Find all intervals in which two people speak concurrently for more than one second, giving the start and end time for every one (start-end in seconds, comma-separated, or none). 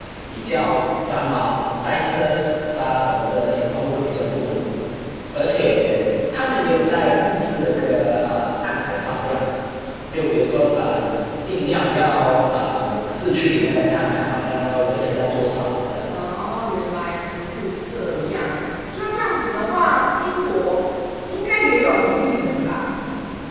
none